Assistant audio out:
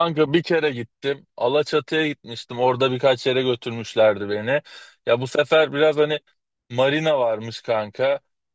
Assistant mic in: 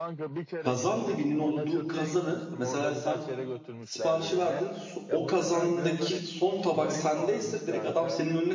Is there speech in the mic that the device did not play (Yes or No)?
Yes